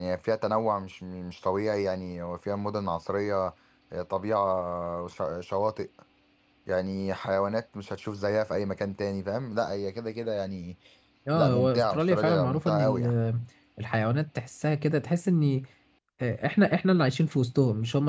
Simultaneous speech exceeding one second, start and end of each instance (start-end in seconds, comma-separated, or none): 11.4-13.1